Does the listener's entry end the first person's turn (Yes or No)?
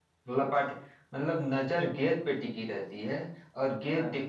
No